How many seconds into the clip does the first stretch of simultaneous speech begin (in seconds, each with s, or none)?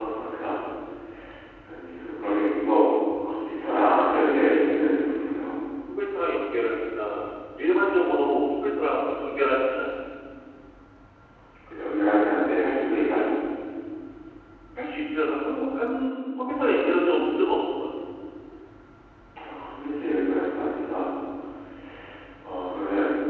none